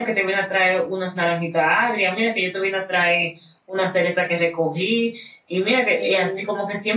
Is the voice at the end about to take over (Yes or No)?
No